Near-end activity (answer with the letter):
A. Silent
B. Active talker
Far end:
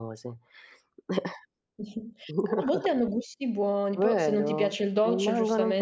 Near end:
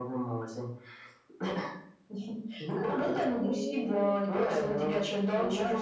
B